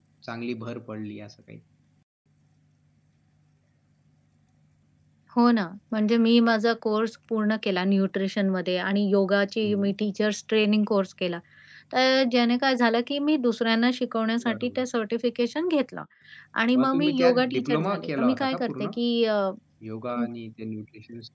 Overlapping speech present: Yes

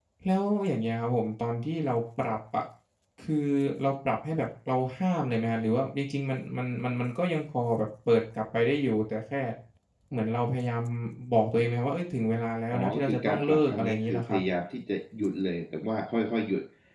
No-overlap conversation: No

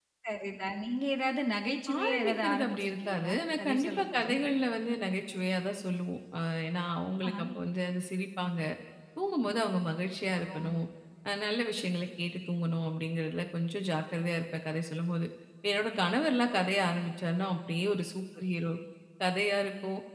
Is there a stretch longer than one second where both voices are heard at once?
Yes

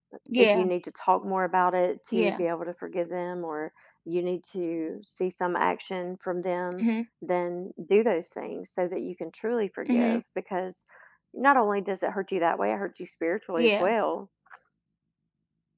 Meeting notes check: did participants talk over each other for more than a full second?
No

